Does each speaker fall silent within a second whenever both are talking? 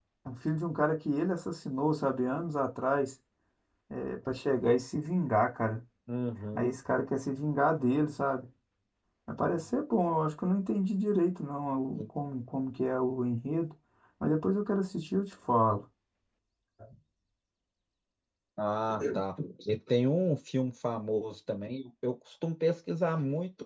Yes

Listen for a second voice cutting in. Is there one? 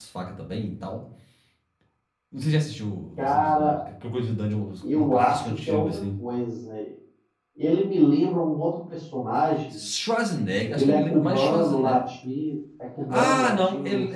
Yes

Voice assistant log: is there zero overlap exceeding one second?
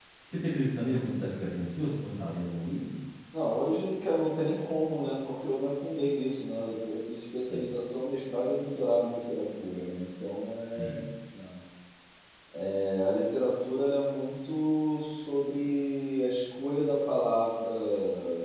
Yes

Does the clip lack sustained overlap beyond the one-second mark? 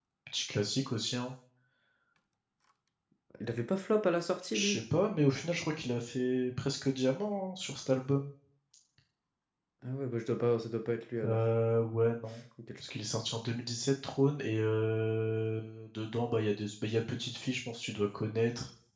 Yes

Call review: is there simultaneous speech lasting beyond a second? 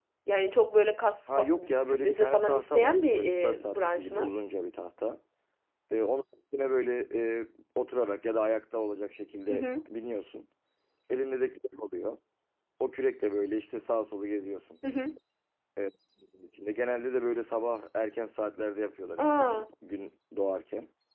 Yes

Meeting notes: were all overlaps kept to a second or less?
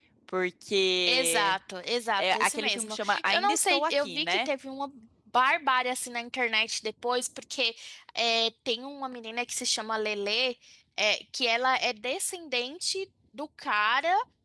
No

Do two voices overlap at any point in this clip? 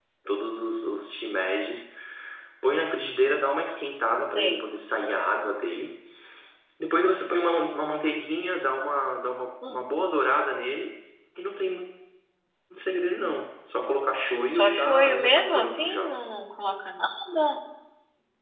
Yes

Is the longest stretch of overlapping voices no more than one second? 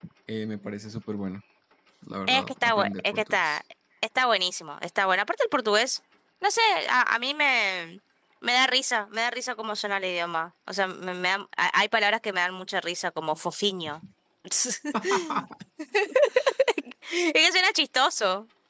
No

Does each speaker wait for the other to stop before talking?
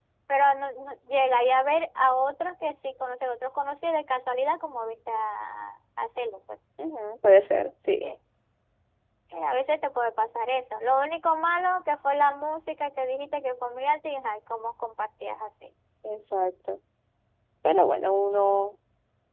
Yes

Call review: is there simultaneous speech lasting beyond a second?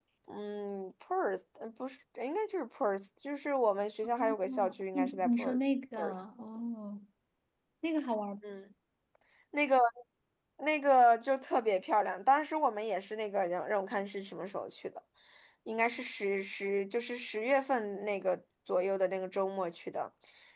Yes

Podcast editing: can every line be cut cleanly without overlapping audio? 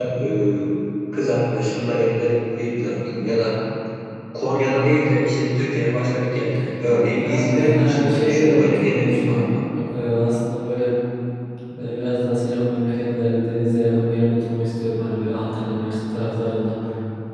No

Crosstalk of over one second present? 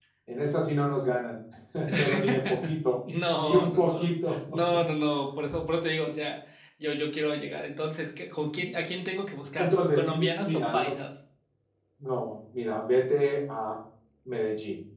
Yes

